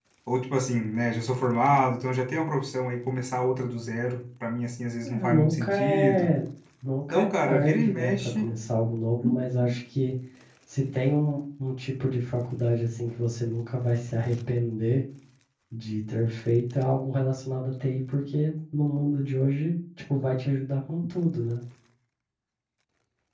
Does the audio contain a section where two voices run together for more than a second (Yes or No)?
Yes